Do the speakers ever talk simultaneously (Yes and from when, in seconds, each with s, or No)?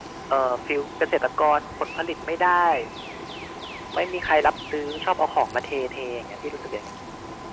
No